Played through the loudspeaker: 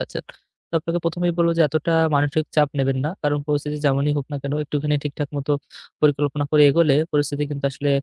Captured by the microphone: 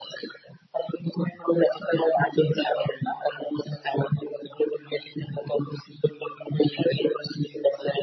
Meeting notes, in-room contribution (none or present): none